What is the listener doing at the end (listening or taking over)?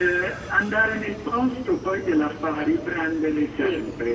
taking over